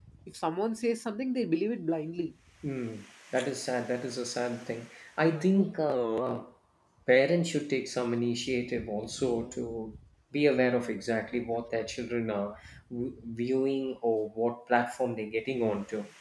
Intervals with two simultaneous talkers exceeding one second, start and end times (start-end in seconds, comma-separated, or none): none